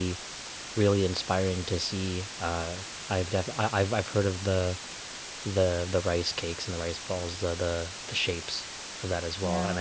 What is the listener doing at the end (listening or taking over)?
listening